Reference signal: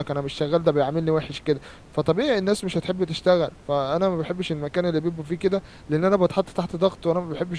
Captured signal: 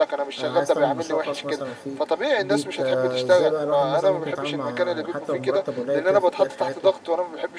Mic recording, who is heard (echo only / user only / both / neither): both